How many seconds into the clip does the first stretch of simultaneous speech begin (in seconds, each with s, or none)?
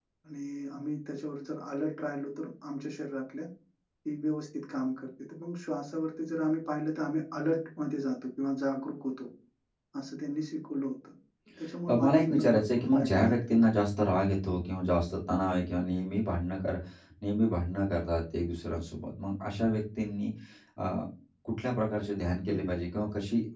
11.9 s